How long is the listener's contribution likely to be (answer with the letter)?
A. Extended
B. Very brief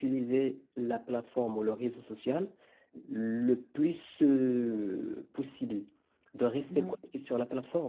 B